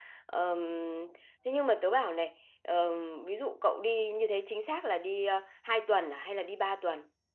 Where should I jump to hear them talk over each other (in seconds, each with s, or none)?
none